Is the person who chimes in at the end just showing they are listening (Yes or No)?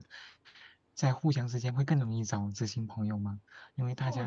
No